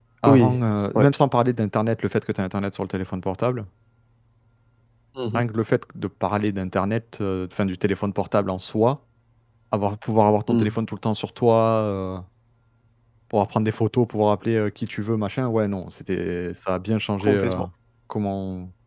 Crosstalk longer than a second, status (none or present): none